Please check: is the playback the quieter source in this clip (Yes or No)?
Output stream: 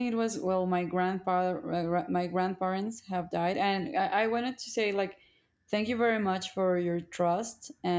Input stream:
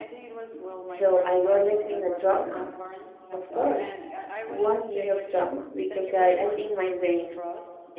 Yes